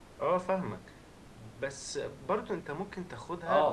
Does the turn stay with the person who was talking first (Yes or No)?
Yes